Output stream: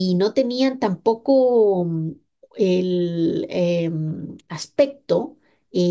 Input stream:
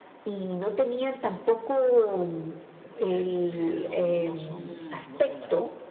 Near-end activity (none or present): present